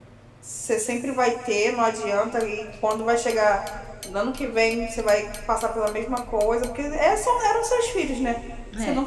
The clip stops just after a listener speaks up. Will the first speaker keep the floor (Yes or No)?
Yes